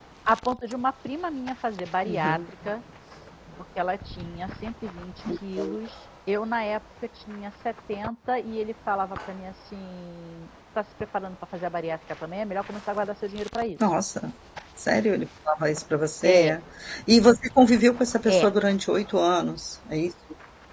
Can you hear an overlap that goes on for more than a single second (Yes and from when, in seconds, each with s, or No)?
No